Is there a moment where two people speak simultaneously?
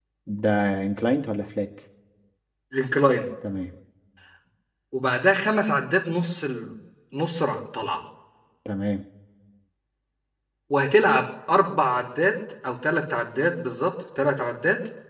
No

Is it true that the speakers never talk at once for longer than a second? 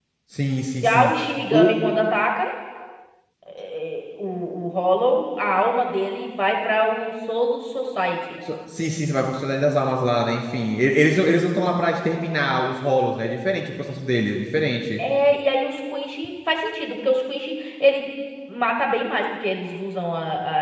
Yes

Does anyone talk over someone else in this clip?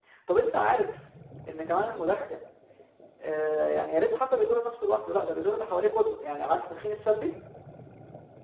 No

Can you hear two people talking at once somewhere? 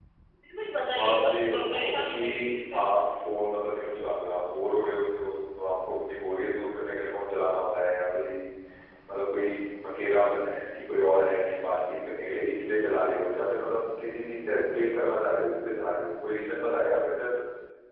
Yes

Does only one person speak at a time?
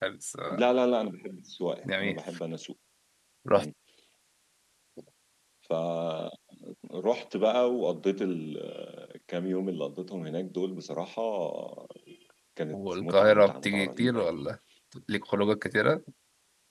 No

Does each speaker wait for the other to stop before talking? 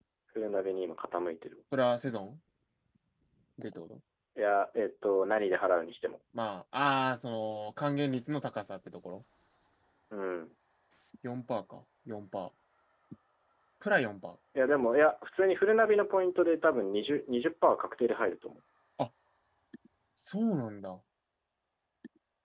Yes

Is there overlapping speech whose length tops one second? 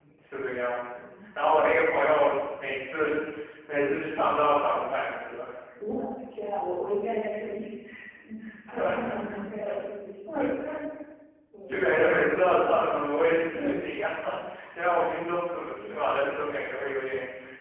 No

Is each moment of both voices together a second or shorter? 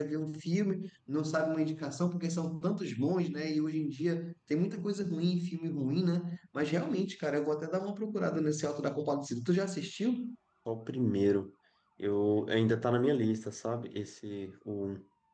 Yes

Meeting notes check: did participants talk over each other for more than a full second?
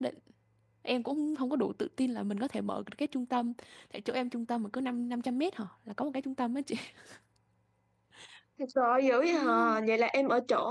No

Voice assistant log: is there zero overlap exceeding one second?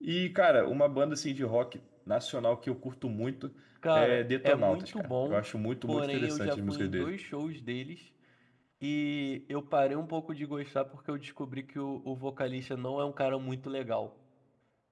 No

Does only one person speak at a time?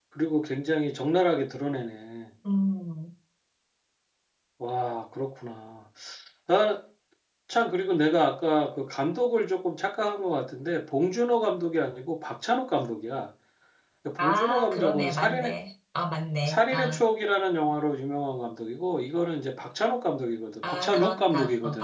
No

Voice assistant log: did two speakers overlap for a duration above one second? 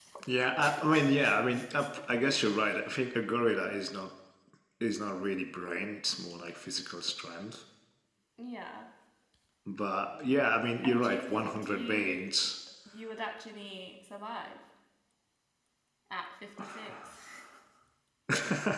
Yes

